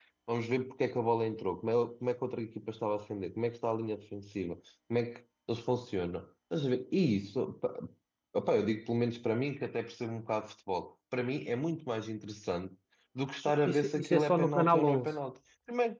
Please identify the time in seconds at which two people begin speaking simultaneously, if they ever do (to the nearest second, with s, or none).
14 s